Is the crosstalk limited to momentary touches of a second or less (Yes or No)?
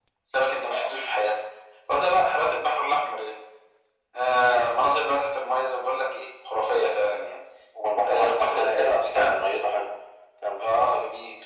No